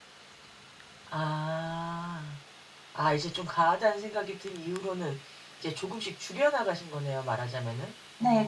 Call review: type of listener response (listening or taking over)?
taking over